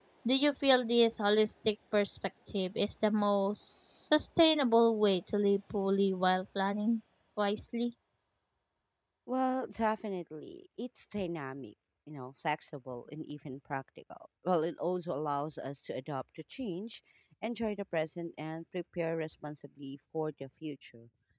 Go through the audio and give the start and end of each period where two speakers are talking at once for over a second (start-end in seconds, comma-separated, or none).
none